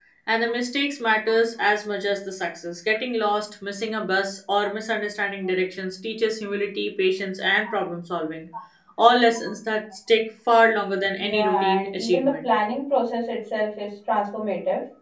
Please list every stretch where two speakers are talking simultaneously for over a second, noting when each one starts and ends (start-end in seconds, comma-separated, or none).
11.2-12.5